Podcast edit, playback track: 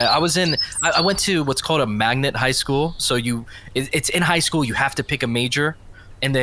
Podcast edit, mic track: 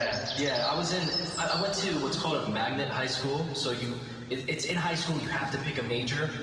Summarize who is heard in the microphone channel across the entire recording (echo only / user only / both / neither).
echo only